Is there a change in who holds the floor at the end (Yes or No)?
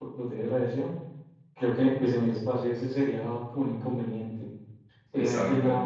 No